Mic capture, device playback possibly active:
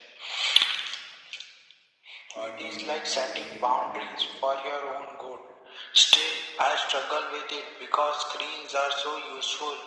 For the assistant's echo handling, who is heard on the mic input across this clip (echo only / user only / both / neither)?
both